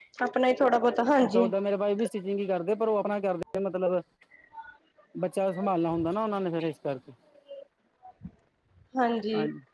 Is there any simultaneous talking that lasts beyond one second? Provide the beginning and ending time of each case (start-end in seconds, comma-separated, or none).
none